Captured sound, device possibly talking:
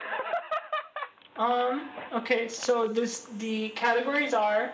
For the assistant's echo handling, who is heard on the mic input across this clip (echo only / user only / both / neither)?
echo only